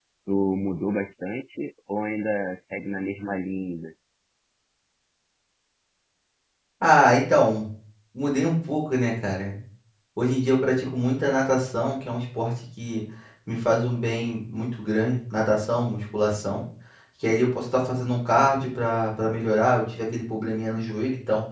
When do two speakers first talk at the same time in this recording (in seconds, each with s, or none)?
none